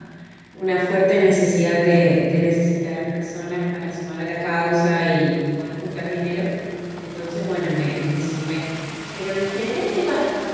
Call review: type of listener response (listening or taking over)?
listening